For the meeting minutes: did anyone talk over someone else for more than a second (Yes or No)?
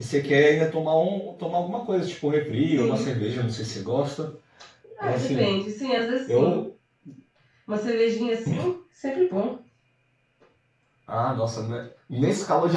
No